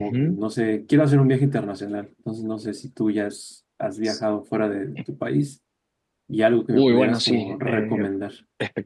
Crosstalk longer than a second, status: present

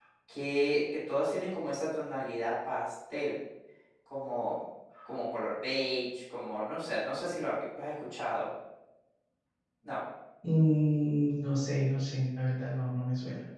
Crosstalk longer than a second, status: none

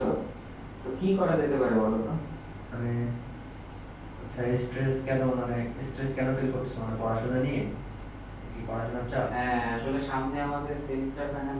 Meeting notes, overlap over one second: none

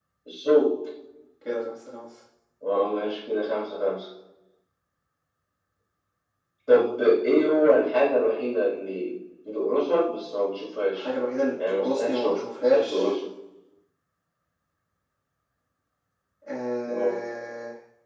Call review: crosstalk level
present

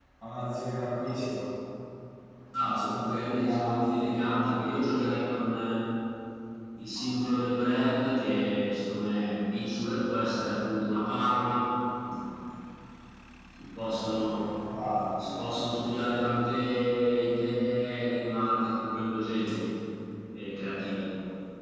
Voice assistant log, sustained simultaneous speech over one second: present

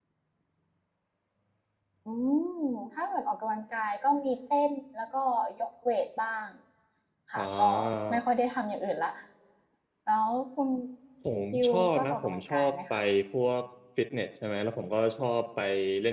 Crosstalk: present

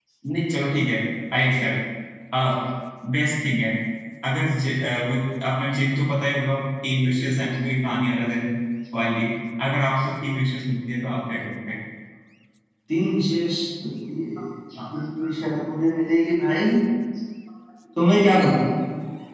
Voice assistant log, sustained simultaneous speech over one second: none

